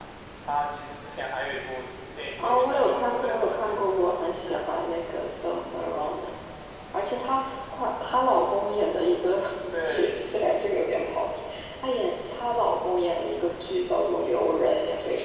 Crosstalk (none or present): present